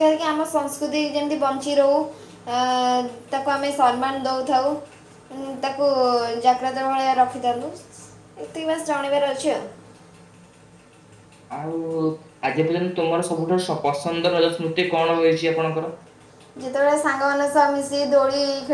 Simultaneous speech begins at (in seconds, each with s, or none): none